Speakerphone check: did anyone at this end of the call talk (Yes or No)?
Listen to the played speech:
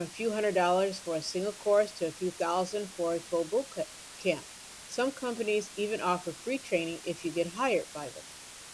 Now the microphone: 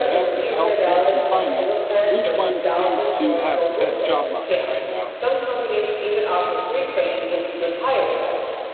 Yes